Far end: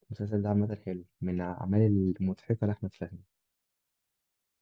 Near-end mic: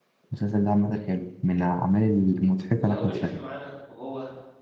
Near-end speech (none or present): present